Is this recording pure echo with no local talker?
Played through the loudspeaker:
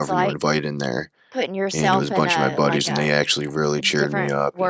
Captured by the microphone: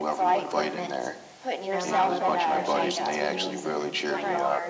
No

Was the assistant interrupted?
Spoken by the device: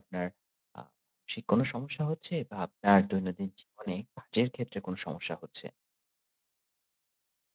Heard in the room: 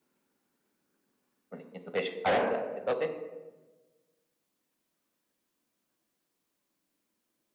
Yes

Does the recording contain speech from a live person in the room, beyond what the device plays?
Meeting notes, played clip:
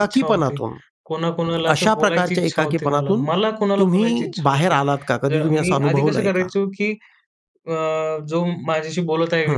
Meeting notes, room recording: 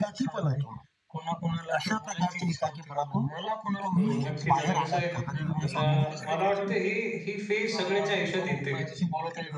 Yes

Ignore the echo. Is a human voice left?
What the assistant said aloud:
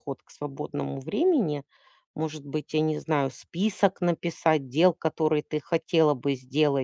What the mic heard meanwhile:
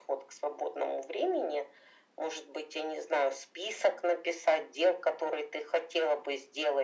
No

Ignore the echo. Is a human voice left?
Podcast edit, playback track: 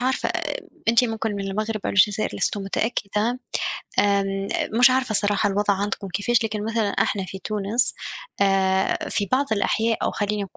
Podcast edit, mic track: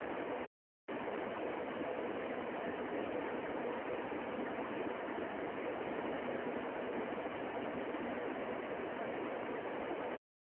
No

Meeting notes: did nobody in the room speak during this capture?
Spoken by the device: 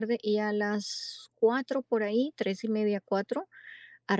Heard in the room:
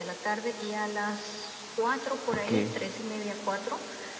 No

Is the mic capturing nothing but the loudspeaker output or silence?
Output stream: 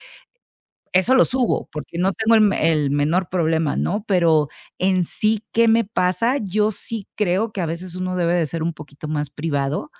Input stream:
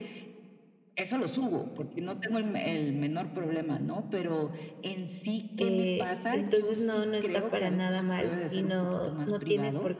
No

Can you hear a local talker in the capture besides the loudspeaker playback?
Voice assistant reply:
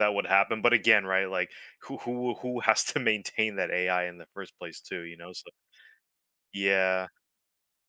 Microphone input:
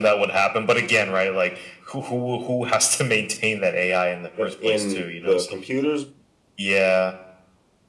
Yes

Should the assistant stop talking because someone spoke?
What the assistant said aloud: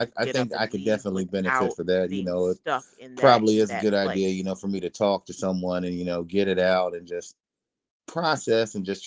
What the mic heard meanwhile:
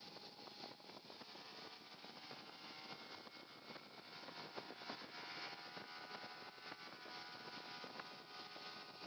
No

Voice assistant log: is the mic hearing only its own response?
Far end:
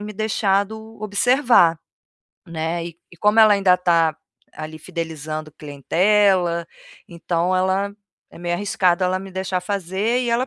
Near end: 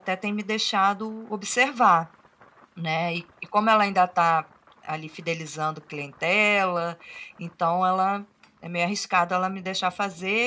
Yes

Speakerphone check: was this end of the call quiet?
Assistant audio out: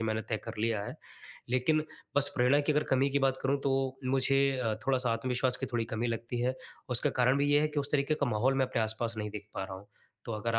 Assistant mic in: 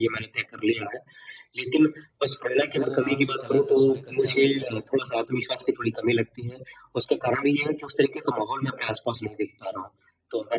No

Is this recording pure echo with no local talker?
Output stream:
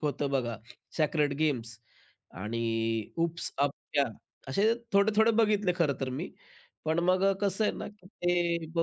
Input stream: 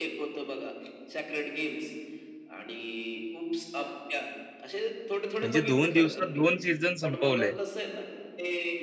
No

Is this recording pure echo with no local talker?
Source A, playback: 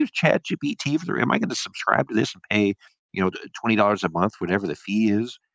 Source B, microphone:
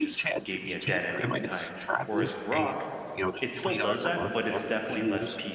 No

